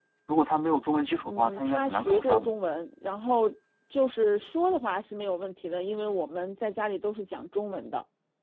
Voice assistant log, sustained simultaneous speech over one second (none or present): present